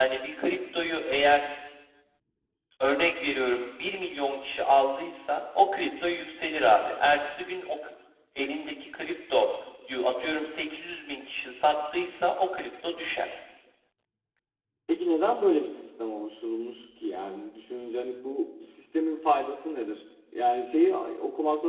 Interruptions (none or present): none